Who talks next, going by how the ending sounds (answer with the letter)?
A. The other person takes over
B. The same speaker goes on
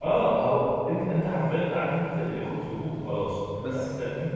B